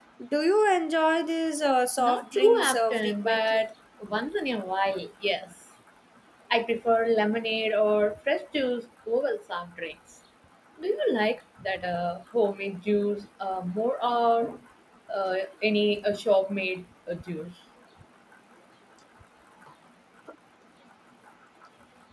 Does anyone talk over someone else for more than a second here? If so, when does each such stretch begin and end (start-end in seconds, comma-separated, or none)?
2.0-3.6